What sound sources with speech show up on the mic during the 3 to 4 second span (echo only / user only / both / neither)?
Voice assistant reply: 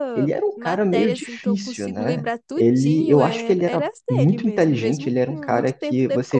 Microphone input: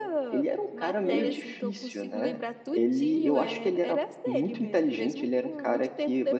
echo only